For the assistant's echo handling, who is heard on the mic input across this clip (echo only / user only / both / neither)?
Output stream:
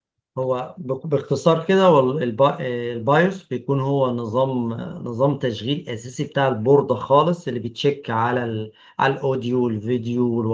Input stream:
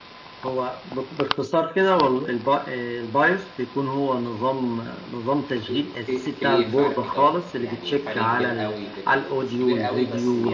both